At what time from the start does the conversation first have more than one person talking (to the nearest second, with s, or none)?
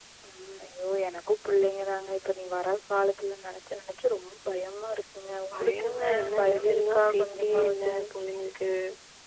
6 s